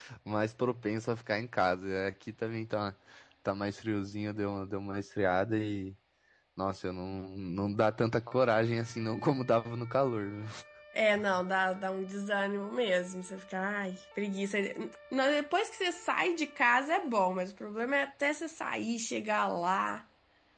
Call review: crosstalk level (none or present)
none